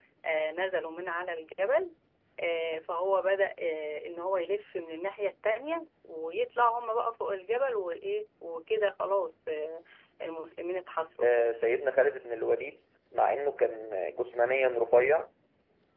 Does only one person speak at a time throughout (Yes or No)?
Yes